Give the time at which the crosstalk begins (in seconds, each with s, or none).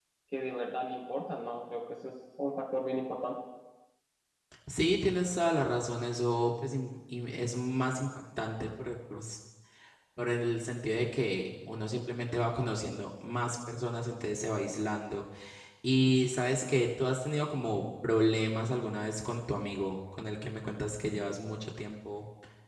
none